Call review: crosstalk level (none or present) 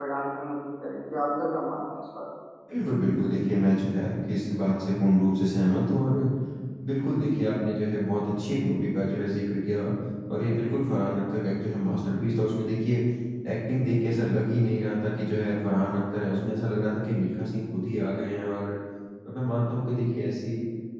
none